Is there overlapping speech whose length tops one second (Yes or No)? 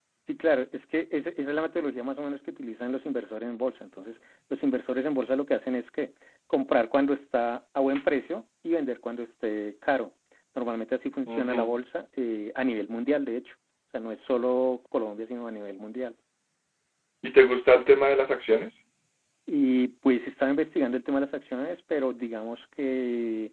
No